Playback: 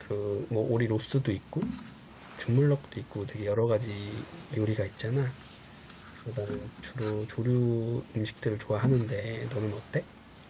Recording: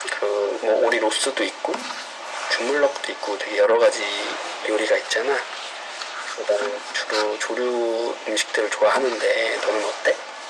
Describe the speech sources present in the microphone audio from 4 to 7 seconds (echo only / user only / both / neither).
echo only